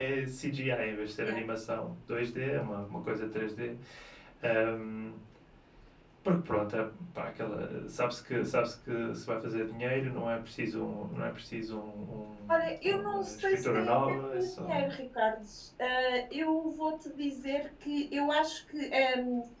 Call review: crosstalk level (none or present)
present